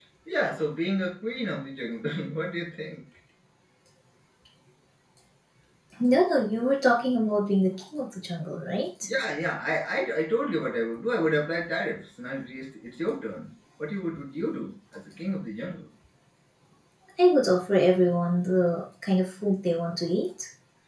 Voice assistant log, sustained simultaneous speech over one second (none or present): none